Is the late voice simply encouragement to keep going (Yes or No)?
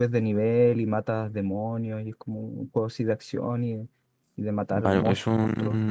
No